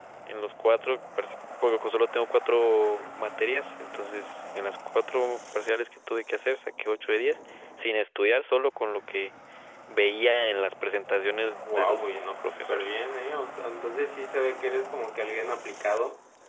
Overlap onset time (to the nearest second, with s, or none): 12 s